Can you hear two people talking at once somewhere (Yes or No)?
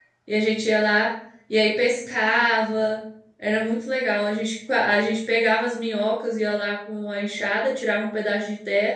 No